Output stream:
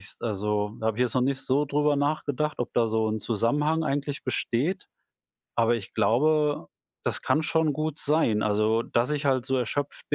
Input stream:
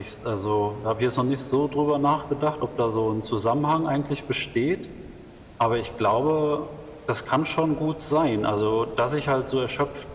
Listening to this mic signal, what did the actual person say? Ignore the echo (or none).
none